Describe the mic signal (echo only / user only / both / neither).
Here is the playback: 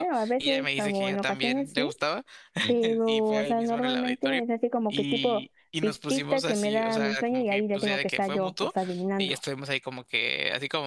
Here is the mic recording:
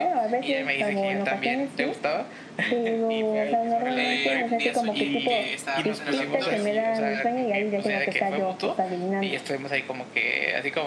both